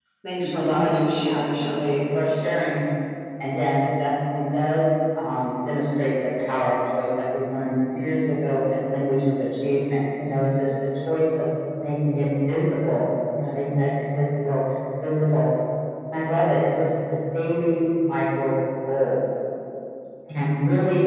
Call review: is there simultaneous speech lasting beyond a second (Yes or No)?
Yes